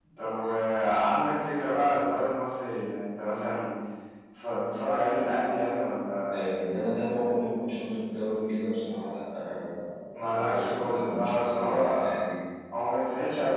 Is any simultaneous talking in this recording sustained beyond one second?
Yes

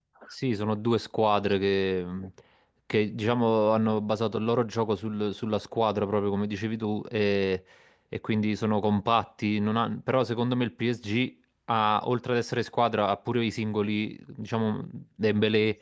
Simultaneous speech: No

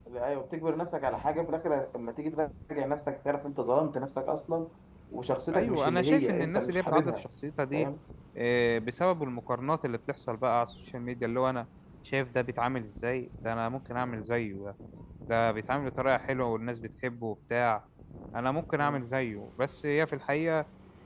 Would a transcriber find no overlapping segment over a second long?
No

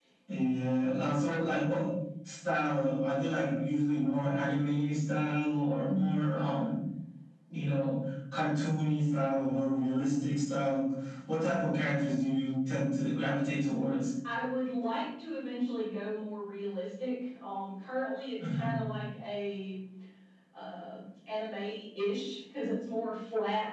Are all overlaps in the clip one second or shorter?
Yes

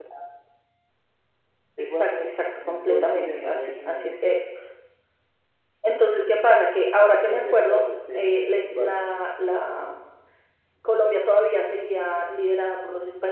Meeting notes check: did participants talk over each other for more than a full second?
Yes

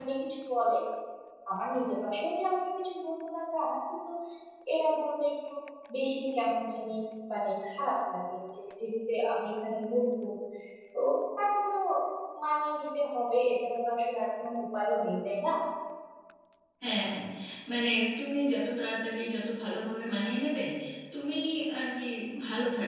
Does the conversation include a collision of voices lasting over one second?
No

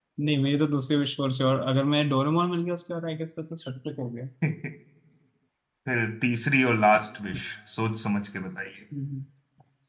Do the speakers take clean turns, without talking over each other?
Yes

